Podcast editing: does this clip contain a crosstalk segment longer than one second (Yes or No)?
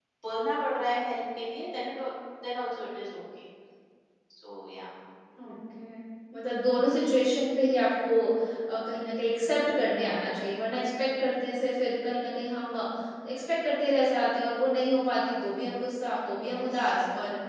No